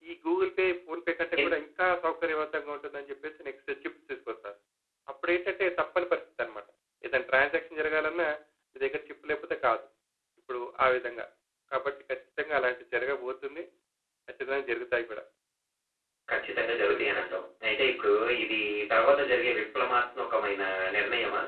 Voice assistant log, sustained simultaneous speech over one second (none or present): none